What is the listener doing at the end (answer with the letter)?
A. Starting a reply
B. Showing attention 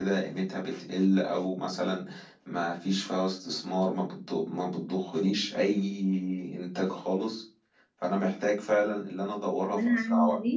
A